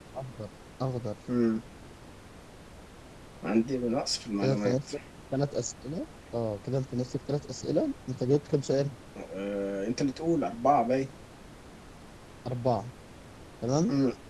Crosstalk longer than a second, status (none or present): none